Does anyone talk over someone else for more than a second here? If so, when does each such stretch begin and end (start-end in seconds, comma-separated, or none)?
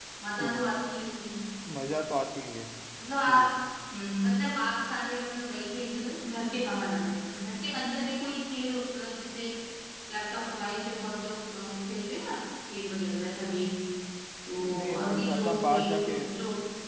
14.8-16.1